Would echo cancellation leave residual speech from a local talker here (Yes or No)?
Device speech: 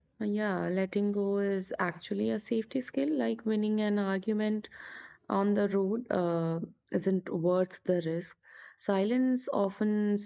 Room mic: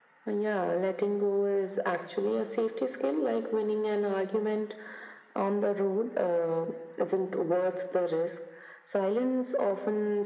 No